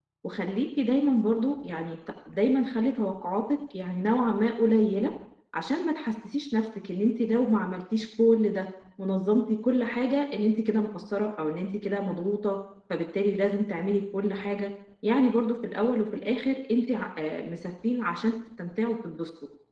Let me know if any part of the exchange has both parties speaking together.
No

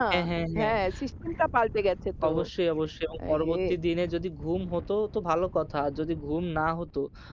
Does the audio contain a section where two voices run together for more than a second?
No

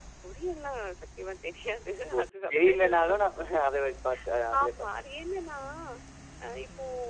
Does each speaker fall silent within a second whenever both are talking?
No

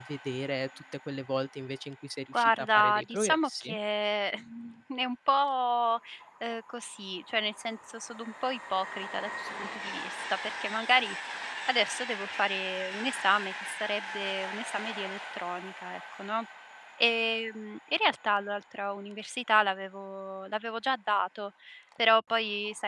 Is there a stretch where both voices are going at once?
Yes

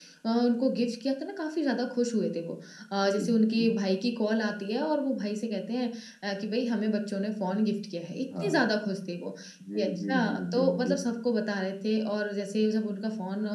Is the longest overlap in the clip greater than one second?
Yes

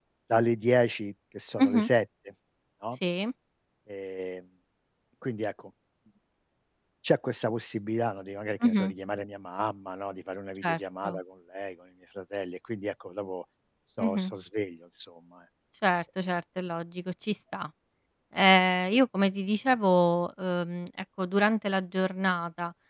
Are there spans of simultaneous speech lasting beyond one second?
No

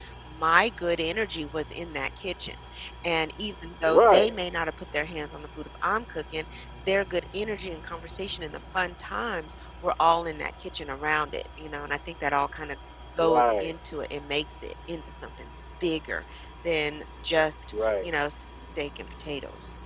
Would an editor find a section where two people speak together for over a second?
No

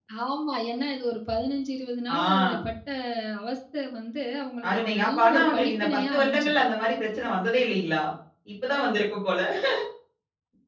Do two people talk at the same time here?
Yes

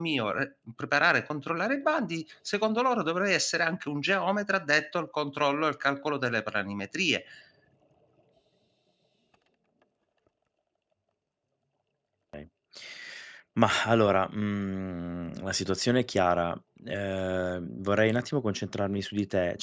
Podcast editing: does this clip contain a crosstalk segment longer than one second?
No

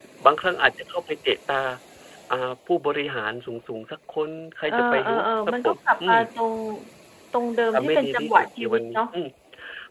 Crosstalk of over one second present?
Yes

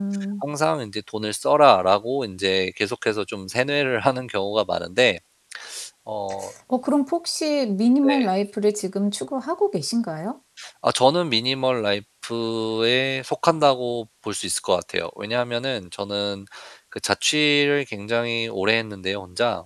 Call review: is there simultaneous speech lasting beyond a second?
No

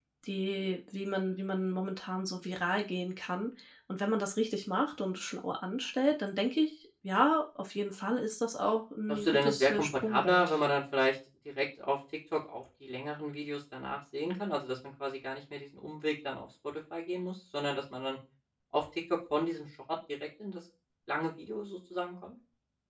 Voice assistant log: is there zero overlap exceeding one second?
No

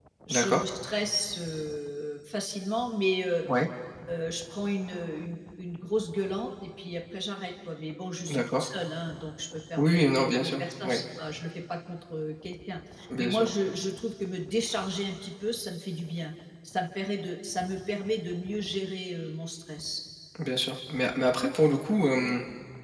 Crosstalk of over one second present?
Yes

